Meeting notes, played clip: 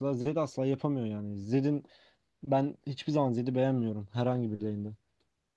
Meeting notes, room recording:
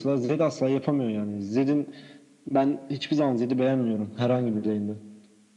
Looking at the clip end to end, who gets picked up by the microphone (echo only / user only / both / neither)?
echo only